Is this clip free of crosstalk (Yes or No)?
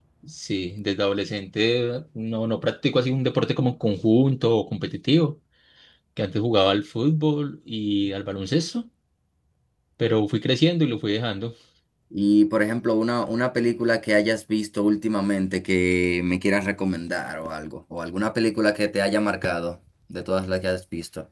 Yes